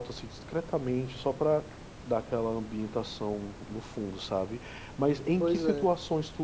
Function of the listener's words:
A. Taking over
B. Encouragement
B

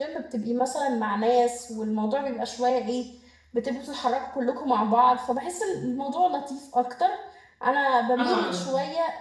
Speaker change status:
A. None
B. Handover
A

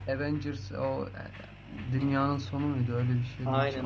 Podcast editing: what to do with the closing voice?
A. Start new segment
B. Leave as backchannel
A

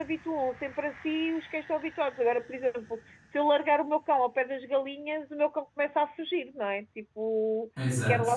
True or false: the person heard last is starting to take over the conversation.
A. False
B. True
A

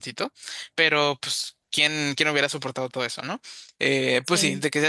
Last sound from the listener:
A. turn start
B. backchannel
B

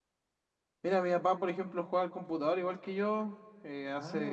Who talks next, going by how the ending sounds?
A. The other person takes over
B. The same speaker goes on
B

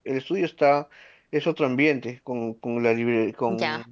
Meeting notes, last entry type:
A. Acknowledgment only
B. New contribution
B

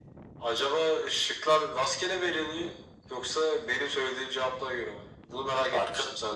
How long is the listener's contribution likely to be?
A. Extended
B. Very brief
A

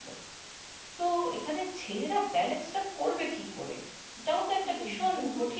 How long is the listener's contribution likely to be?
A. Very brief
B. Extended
B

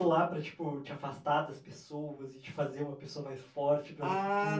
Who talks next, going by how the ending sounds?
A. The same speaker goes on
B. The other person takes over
B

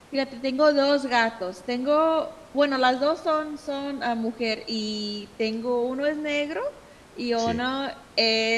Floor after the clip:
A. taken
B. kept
B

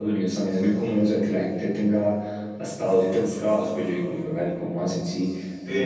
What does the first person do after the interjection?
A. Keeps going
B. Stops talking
A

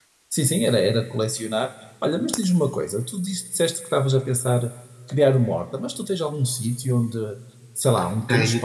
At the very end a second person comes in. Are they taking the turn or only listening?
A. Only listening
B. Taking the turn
B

